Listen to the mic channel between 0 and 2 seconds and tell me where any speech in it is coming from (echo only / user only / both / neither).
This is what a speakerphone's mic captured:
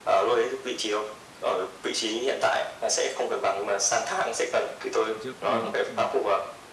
echo only